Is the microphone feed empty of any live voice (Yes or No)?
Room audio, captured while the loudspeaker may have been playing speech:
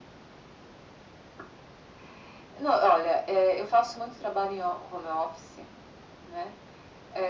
Yes